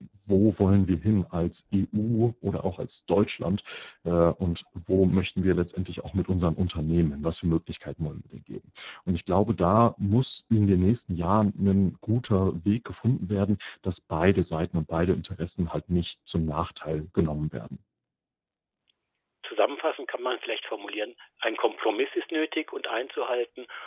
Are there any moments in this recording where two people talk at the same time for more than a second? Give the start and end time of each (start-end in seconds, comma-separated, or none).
none